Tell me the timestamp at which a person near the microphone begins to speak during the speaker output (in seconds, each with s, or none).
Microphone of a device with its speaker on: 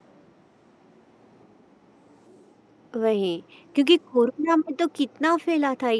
3.0 s